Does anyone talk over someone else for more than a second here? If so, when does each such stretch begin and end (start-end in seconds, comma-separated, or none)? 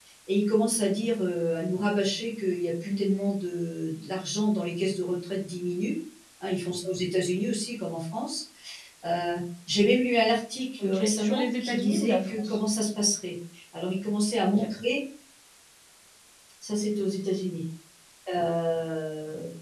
10.8-12.6